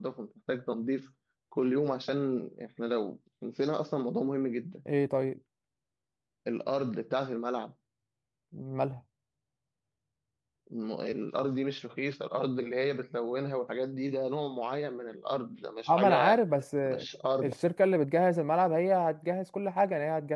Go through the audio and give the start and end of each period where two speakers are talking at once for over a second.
none

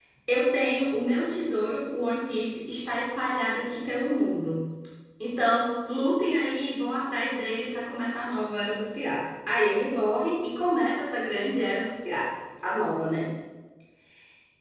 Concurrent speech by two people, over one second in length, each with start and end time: none

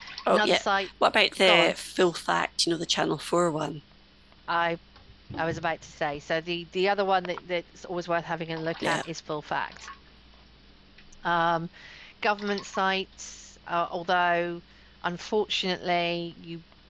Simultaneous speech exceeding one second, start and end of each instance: none

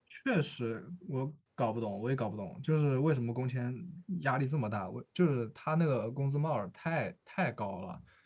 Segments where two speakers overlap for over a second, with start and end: none

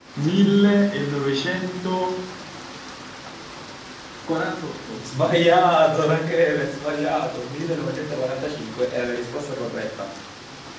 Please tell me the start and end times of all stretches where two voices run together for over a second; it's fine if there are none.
none

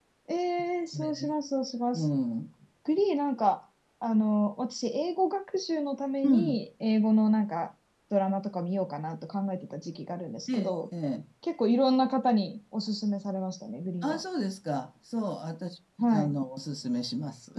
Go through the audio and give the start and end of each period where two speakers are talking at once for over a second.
none

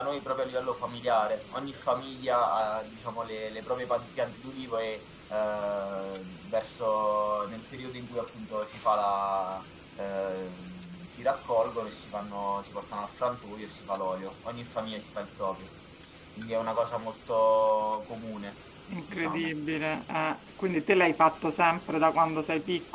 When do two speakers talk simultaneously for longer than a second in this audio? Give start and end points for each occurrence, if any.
none

